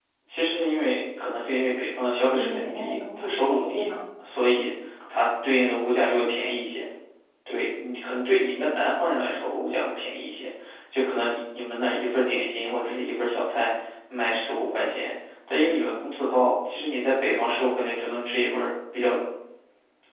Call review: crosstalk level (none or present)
present